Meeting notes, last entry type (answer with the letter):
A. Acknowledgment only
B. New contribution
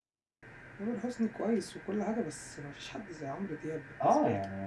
B